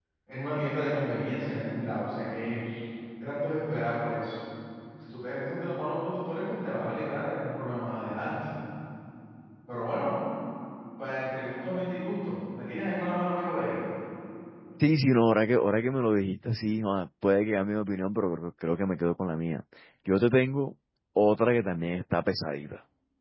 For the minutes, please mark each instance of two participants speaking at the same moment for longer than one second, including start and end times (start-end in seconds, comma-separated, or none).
none